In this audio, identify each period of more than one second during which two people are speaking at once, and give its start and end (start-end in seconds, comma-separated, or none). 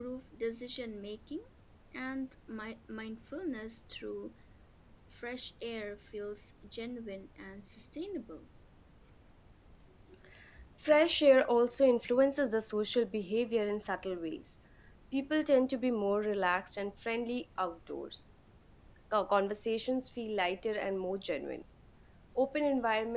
none